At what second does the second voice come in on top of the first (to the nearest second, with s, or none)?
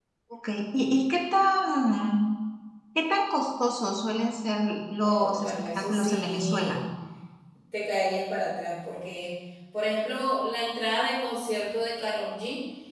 5 s